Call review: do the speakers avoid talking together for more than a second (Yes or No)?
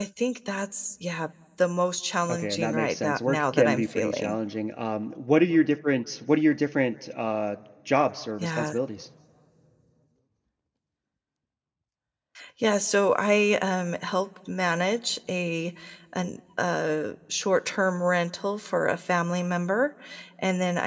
No